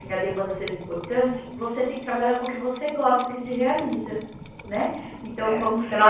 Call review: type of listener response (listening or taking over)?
taking over